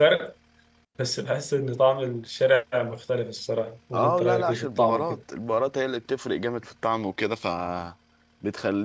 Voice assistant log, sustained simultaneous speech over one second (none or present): present